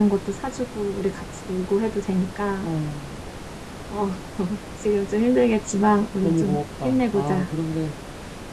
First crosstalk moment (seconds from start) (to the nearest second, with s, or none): 6 s